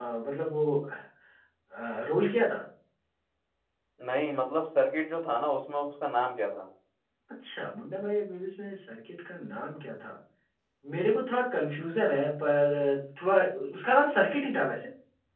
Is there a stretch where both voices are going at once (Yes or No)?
No